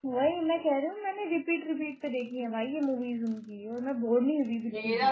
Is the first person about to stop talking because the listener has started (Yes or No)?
Yes